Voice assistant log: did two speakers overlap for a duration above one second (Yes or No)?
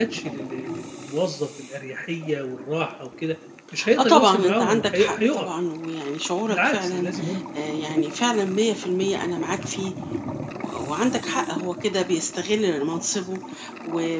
Yes